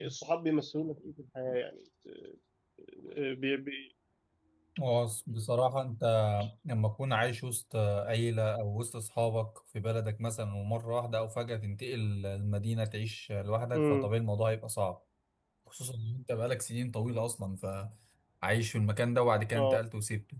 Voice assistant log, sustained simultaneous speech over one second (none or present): none